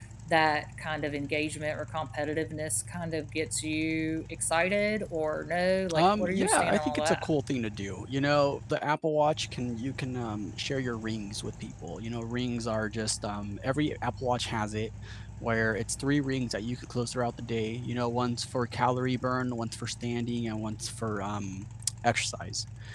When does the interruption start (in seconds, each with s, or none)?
5.9 s